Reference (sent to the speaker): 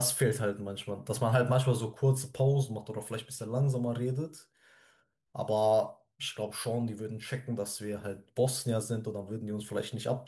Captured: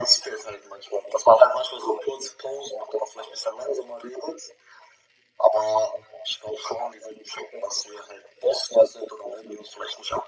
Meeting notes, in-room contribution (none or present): none